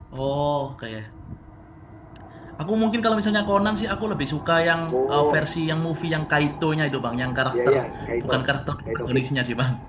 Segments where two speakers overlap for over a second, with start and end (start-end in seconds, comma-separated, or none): none